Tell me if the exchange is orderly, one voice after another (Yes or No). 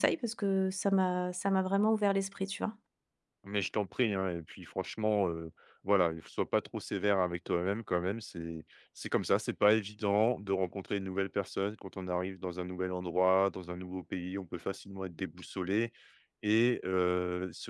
Yes